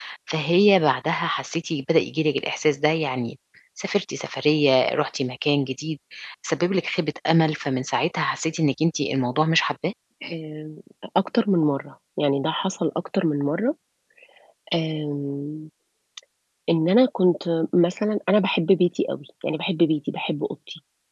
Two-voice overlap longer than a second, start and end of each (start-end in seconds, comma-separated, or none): none